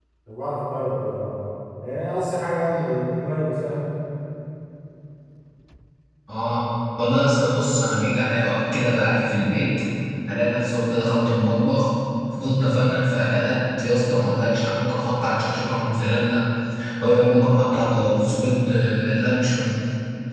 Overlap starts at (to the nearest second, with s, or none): none